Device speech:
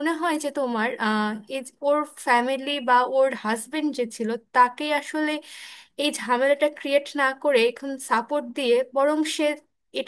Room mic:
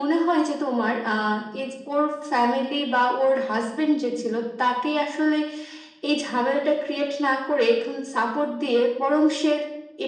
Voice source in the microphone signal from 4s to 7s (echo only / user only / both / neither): echo only